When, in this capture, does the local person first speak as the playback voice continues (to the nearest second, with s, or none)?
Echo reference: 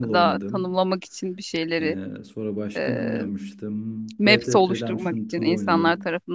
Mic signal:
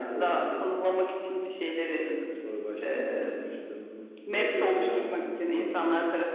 none